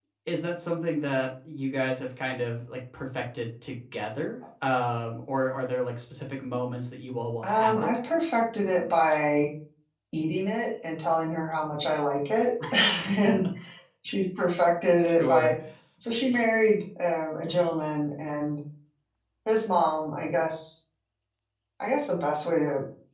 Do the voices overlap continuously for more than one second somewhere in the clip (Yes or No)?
No